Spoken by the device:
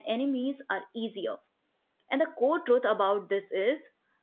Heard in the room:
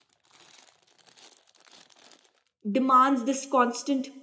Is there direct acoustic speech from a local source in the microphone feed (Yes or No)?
Yes